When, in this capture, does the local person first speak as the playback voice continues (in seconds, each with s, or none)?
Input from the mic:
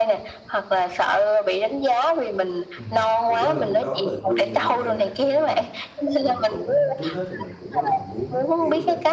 2.8 s